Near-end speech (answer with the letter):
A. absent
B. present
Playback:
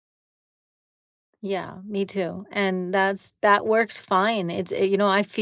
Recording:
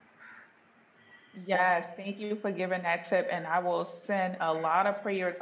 B